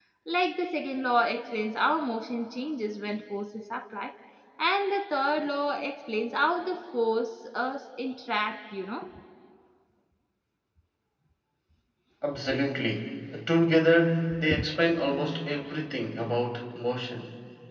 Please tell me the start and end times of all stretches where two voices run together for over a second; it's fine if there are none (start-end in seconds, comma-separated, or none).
none